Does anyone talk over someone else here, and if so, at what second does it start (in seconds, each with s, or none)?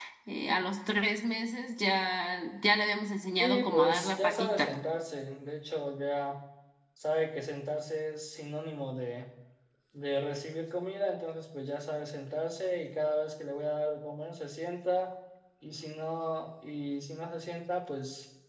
3.4 s